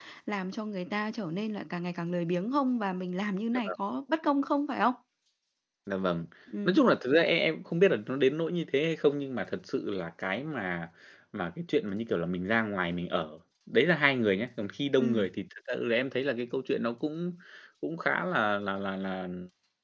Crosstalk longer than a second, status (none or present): none